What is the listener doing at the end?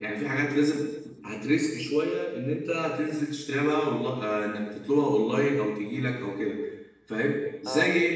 listening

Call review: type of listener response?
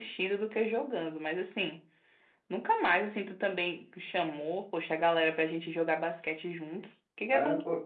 taking over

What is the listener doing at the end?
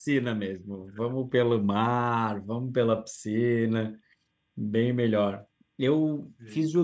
listening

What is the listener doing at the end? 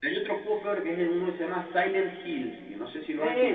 taking over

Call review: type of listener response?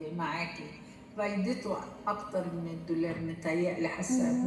listening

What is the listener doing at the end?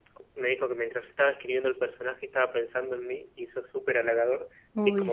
listening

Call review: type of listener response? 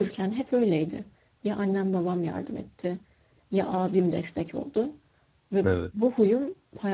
listening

